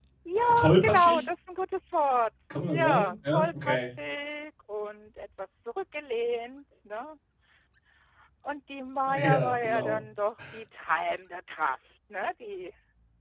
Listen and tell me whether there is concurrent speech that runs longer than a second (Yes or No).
Yes